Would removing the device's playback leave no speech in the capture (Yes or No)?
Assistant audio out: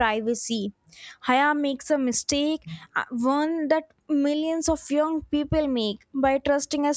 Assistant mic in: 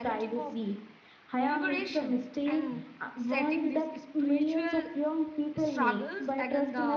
No